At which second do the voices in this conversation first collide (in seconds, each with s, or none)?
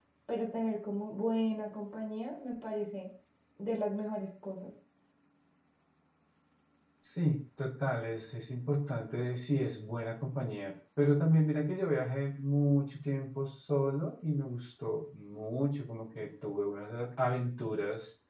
none